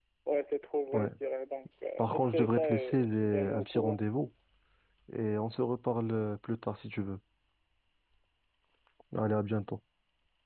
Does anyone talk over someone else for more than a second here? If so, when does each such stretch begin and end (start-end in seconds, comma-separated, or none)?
2.0-4.0